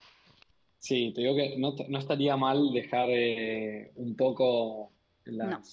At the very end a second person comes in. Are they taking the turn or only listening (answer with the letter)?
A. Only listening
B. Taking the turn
A